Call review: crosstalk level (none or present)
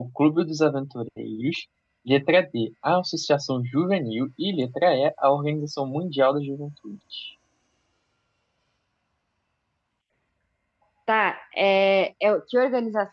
none